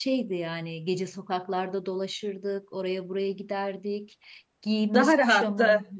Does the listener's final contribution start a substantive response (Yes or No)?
No